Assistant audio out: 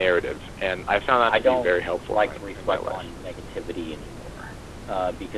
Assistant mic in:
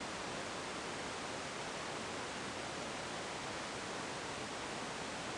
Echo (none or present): none